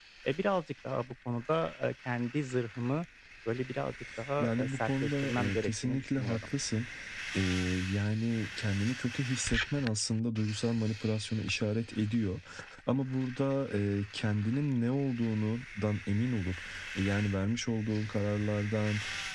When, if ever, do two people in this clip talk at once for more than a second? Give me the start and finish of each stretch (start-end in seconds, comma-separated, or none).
4.4-6.5